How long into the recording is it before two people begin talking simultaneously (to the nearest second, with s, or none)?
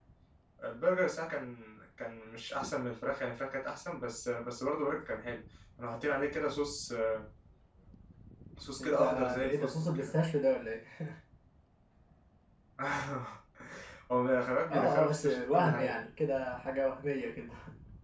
9 s